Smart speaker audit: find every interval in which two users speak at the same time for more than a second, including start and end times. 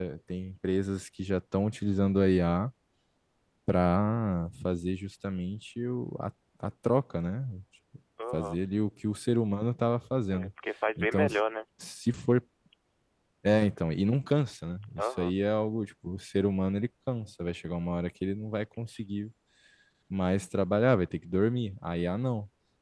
none

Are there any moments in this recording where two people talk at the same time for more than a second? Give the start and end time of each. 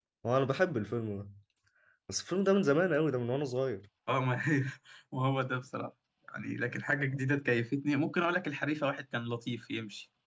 none

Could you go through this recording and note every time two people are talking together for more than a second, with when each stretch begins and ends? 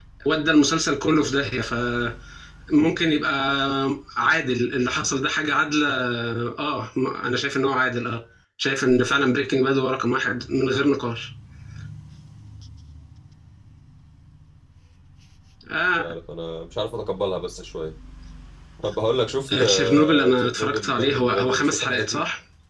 19.6-22.2

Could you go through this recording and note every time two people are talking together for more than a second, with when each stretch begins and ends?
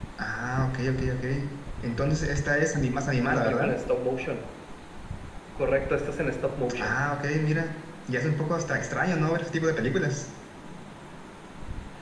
none

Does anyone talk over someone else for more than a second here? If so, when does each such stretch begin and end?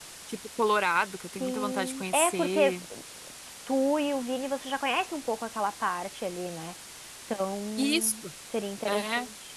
1.4-2.6

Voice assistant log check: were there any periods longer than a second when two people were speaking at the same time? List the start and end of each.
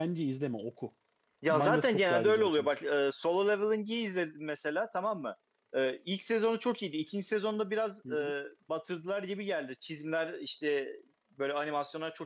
1.5-2.7

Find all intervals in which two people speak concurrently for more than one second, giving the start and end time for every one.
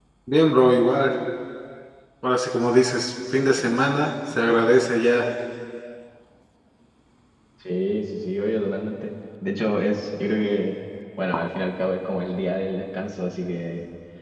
none

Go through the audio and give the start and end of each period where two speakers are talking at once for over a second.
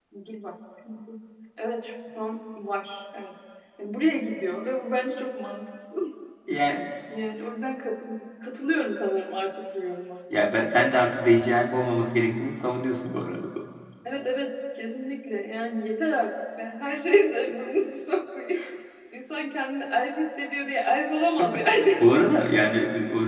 none

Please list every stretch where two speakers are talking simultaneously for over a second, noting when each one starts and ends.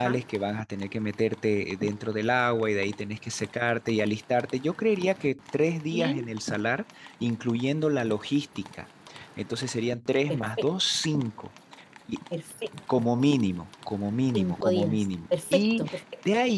14.3-15.8

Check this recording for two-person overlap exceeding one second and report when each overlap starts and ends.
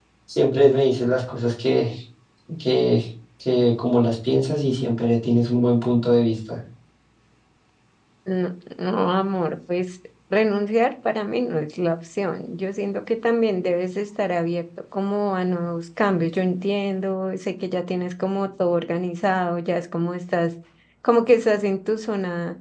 none

